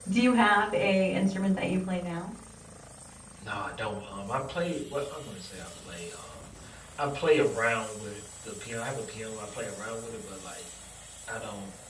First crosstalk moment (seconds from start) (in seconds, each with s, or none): none